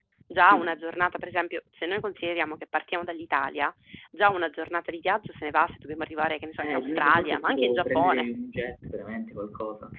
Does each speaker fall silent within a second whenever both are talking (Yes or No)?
No